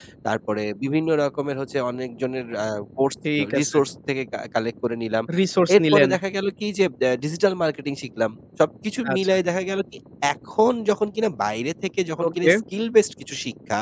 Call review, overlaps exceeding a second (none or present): none